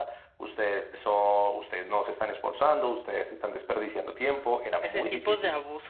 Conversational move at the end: taking over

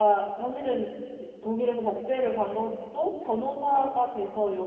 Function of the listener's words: listening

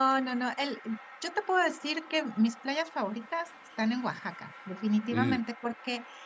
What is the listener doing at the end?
listening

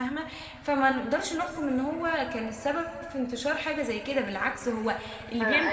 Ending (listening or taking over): taking over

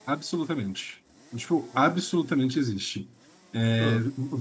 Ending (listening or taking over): listening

